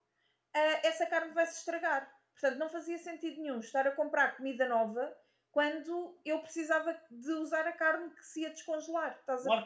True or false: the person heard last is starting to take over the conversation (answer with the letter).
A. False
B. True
B